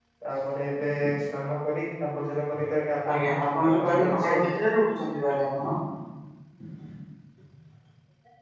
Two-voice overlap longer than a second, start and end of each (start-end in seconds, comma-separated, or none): 3.1-4.5